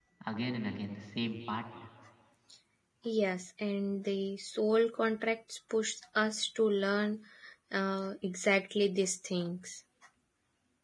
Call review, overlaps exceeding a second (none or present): none